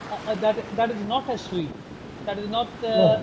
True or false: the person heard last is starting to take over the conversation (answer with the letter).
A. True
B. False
B